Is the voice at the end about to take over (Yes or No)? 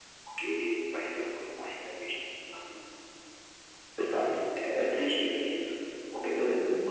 No